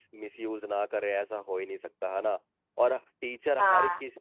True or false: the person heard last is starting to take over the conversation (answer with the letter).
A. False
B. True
A